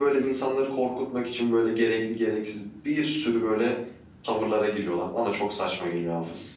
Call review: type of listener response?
taking over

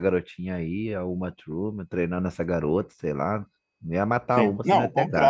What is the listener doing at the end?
taking over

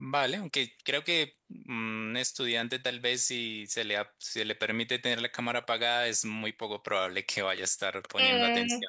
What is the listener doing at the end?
taking over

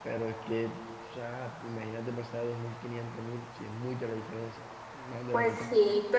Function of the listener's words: taking over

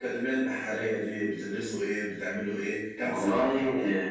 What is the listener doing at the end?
taking over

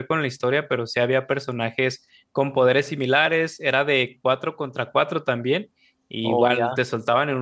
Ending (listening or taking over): listening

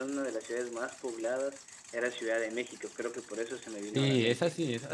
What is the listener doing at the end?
taking over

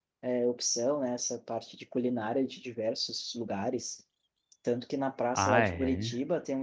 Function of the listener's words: listening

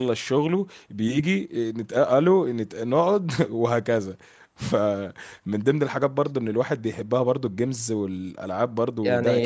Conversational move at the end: taking over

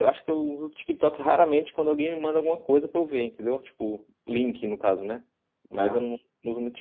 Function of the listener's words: listening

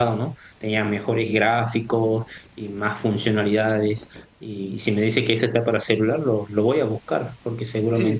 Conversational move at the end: taking over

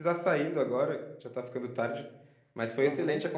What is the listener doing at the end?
listening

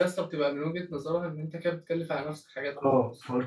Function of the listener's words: taking over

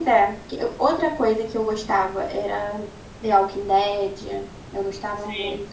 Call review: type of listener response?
listening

